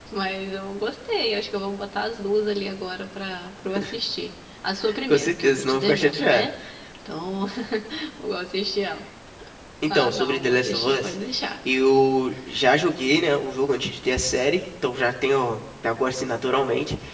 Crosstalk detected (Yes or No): Yes